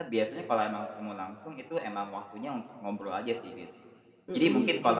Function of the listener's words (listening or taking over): listening